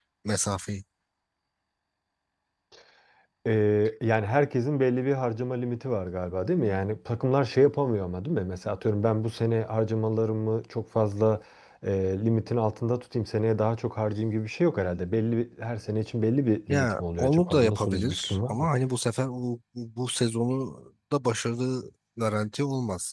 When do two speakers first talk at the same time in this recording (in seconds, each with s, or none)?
16.7 s